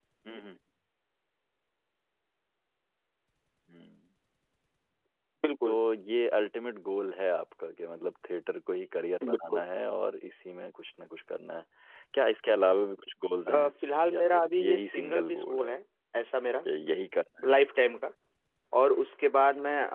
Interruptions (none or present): present